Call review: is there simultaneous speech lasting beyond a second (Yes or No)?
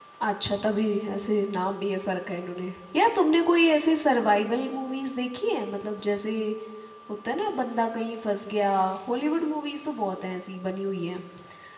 No